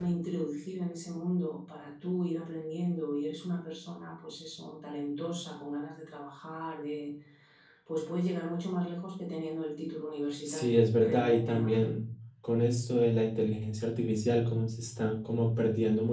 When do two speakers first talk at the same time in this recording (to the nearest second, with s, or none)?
10 s